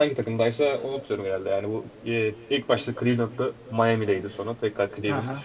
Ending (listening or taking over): taking over